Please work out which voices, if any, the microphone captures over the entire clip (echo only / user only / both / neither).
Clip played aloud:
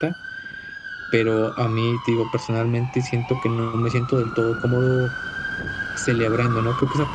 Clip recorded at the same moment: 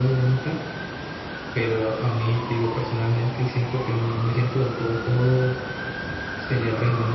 echo only